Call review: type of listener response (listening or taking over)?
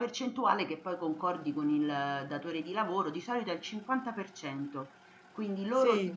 listening